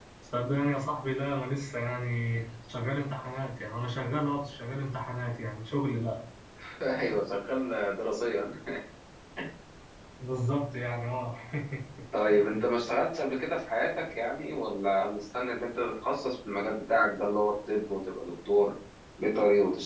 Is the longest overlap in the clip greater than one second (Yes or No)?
No